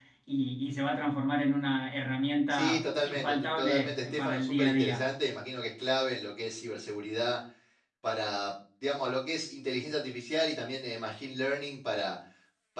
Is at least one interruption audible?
Yes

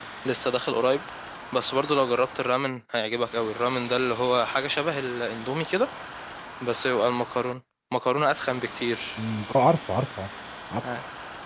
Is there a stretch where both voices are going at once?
No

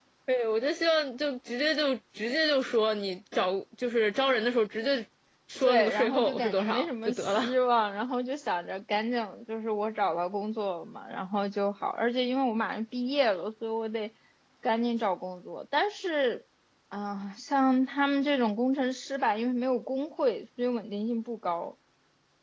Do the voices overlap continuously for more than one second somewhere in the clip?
Yes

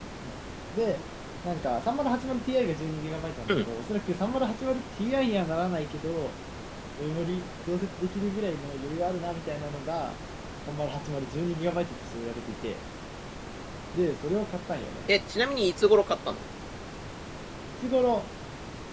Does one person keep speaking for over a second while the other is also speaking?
No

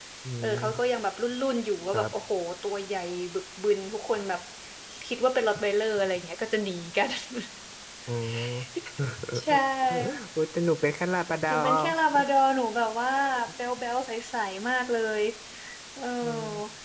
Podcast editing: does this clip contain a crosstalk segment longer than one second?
No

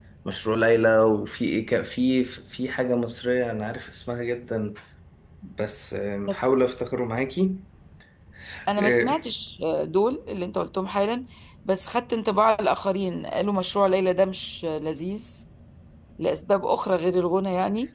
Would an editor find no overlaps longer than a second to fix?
Yes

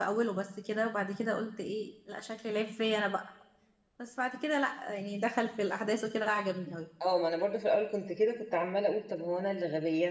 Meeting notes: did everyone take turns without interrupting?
Yes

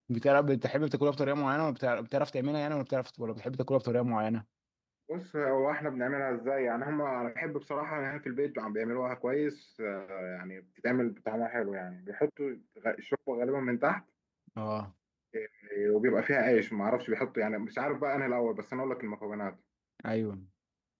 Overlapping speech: No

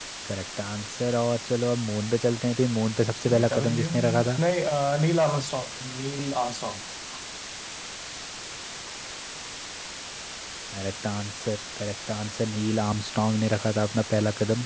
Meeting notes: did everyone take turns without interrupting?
No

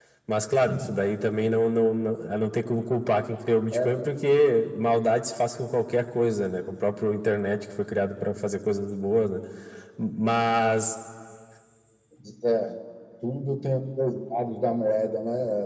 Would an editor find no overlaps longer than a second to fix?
Yes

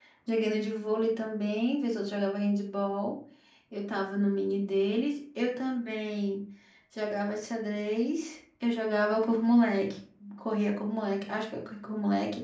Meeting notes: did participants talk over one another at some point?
No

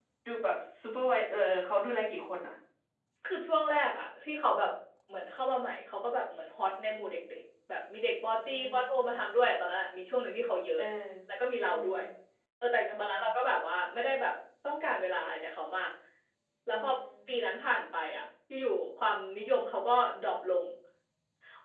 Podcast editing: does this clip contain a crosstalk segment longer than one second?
No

